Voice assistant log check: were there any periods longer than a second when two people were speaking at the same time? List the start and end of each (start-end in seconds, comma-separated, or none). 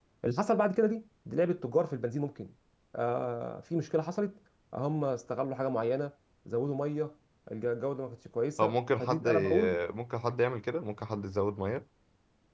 8.6-9.8